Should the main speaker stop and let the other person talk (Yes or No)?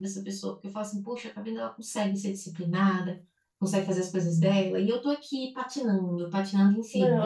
Yes